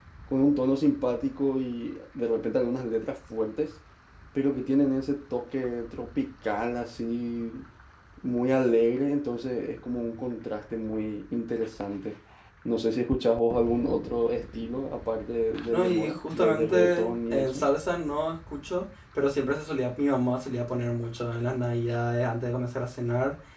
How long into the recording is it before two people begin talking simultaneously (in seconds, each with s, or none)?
15.6 s